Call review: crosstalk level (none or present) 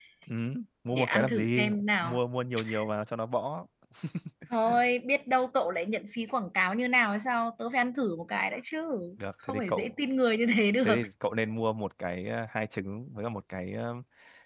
present